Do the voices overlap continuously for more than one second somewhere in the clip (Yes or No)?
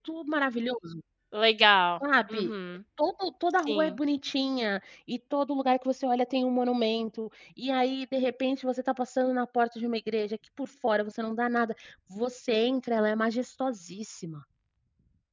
No